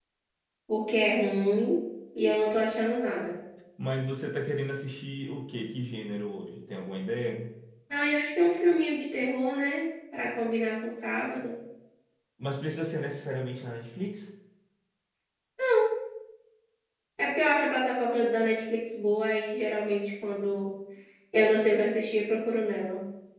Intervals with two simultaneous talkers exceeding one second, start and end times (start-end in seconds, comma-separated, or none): none